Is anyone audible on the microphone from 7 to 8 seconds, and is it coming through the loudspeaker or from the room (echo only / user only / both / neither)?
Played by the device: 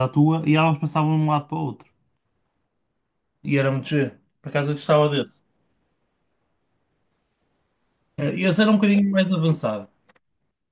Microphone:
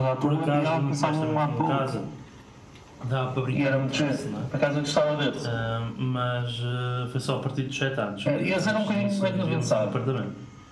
user only